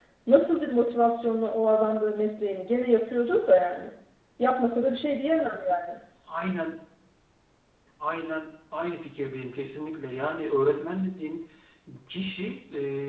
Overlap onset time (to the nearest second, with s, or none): none